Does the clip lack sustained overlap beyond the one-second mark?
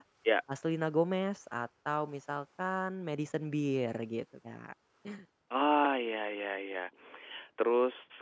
Yes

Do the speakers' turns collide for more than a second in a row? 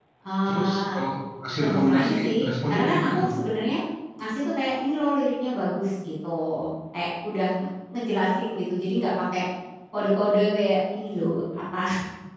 Yes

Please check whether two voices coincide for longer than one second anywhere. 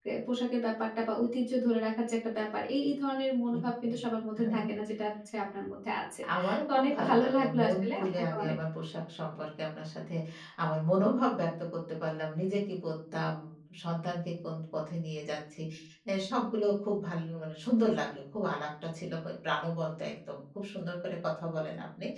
Yes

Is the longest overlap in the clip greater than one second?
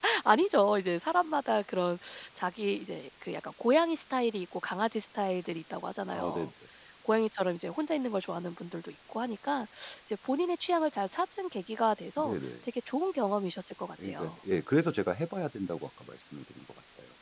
No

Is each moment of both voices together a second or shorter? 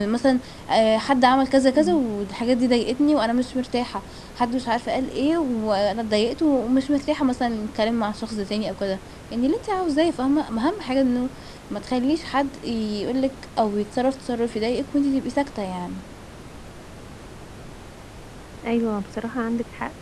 Yes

